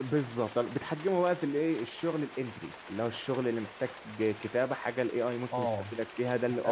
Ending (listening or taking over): taking over